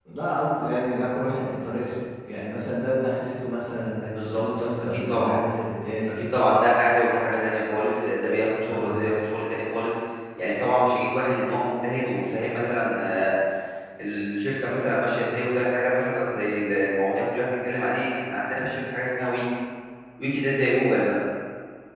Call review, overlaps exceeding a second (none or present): present